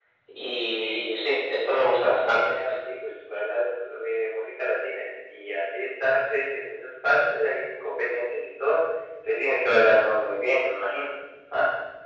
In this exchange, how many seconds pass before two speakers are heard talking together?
0.8 s

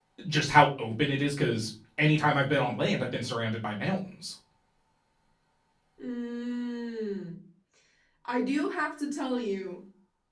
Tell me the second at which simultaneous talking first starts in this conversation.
none

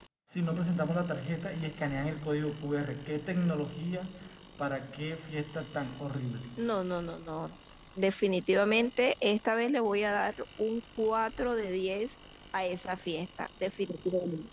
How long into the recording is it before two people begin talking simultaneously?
none

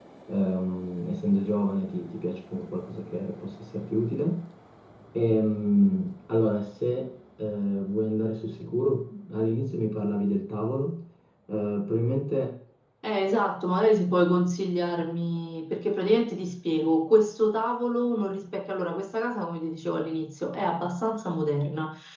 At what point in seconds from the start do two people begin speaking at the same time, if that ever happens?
none

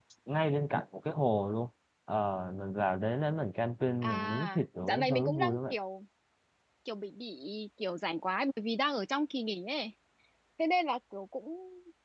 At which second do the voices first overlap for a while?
4.0 s

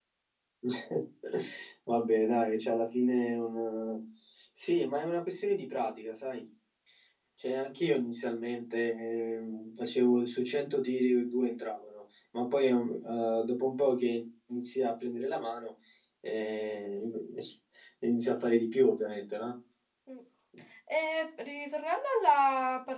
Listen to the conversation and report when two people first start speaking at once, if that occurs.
none

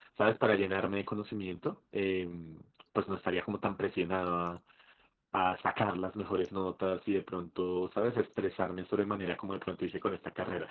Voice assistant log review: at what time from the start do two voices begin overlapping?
none

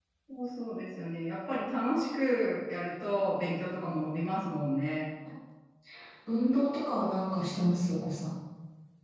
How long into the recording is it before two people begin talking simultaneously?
none

